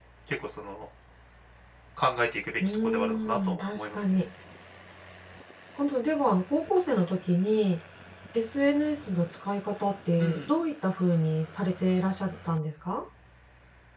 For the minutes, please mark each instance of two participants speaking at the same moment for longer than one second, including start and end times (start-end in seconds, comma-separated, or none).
2.6-4.2